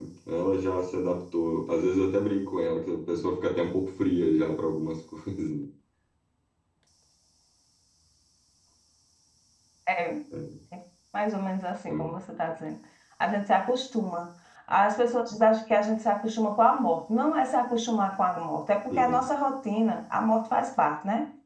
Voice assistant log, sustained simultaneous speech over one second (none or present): none